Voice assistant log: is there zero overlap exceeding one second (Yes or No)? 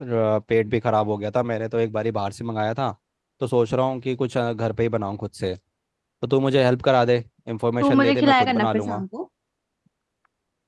No